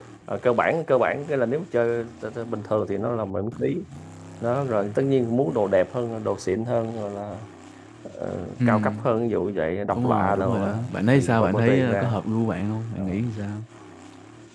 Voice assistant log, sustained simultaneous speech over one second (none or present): present